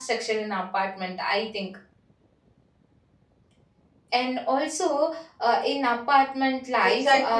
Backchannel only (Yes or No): No